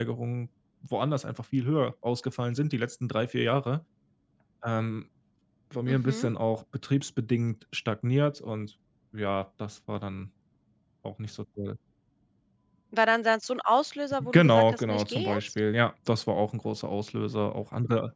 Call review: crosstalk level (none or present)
present